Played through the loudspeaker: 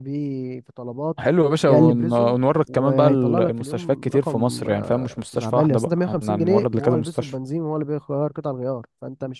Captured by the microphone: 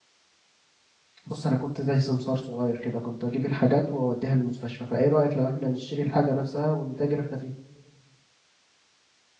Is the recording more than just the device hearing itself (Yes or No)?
Yes